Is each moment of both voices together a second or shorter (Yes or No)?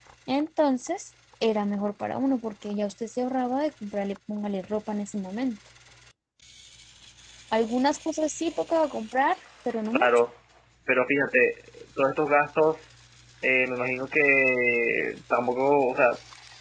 Yes